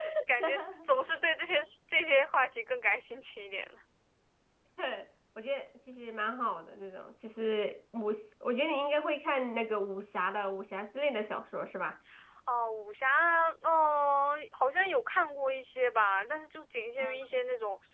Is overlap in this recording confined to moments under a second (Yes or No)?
Yes